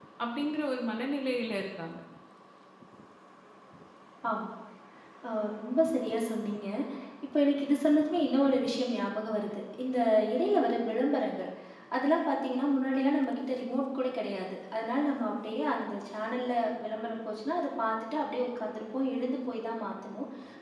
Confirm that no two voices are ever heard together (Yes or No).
Yes